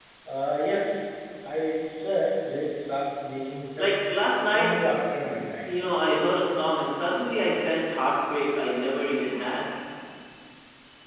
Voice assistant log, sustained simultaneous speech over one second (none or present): none